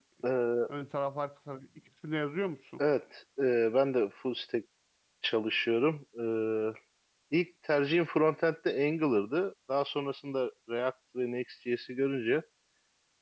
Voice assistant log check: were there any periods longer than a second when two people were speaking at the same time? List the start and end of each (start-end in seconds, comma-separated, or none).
none